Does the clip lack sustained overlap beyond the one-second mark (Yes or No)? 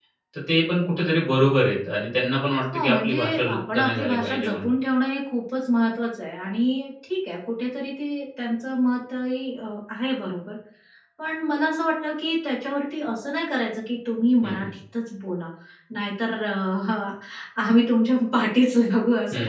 No